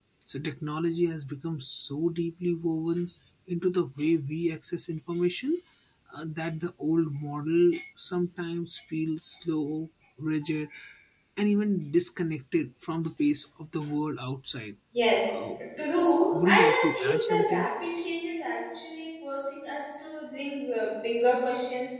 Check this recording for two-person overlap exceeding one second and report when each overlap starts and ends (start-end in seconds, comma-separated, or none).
16.3-17.7